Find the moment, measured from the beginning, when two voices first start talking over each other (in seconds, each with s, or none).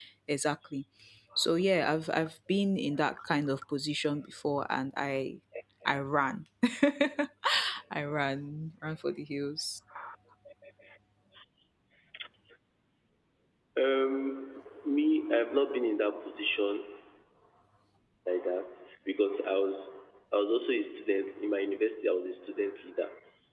none